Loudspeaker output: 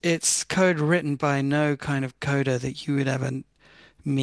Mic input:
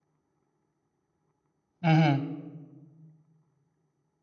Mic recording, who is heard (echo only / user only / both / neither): user only